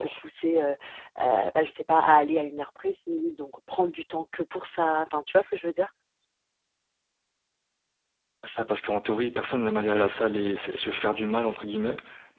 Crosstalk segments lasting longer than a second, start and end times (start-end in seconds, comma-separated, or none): none